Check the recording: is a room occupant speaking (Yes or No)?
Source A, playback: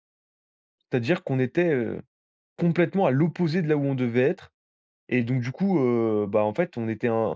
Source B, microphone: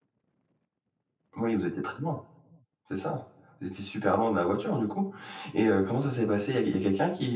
Yes